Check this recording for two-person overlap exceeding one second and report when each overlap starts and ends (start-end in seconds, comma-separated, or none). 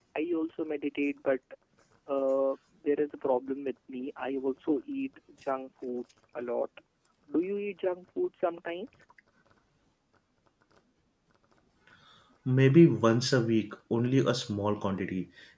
none